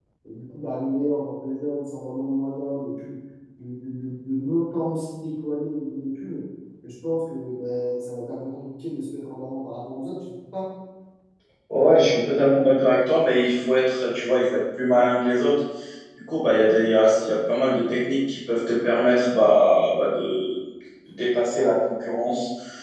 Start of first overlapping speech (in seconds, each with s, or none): none